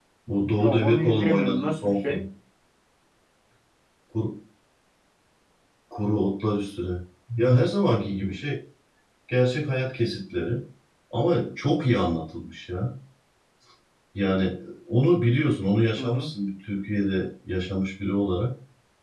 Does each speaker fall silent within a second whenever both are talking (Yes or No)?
No